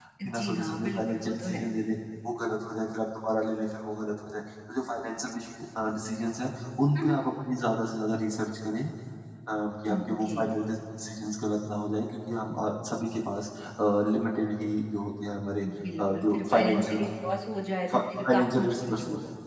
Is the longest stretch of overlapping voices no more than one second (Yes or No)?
No